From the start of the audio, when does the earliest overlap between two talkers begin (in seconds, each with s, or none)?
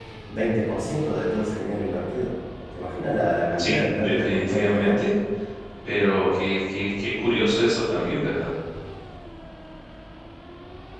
3.6 s